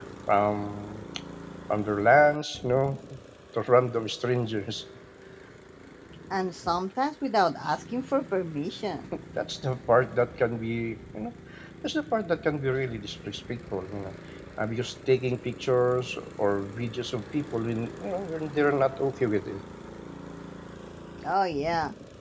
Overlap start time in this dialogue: none

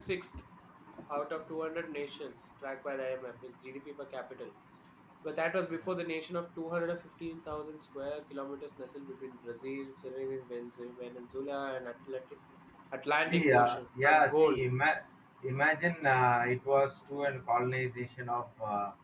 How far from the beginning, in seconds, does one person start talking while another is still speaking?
13.2 s

